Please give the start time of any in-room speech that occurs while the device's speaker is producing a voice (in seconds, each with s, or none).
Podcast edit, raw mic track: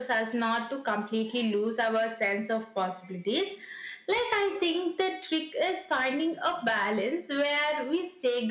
none